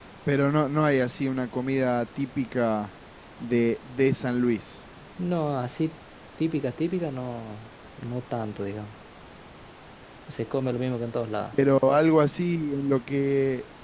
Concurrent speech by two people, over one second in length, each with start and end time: none

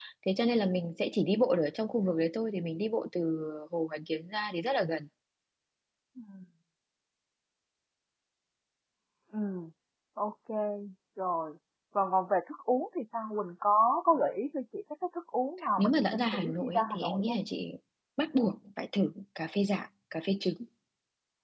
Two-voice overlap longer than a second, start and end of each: 15.8-17.4

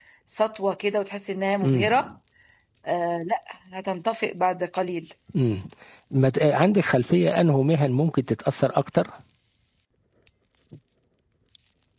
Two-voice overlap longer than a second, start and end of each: none

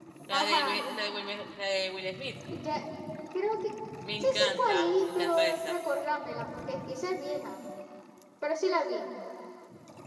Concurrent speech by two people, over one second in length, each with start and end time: 4.2-5.8

